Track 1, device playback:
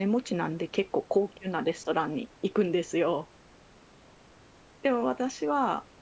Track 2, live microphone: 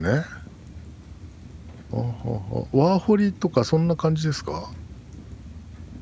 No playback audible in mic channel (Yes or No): Yes